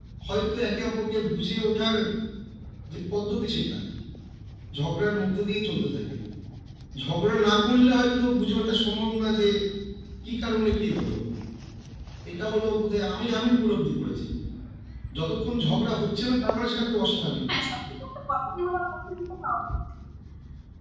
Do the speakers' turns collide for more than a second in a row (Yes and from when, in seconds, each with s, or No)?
No